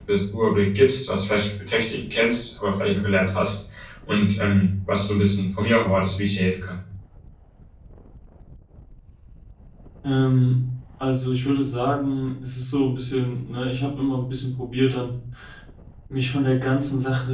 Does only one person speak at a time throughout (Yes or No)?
Yes